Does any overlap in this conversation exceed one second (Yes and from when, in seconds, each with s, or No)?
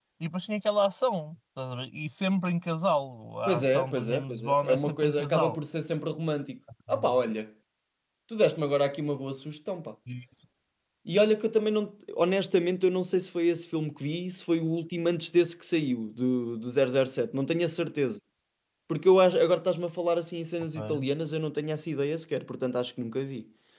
Yes, from 3.5 s